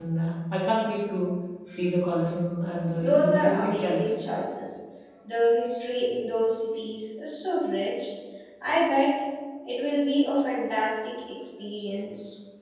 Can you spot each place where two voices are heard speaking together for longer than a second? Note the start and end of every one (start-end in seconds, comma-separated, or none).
3.0-4.3